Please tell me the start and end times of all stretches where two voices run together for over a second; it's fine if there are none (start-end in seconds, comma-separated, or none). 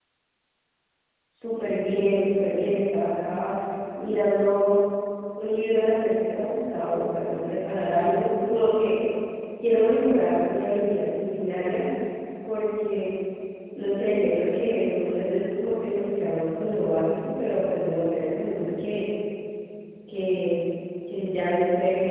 none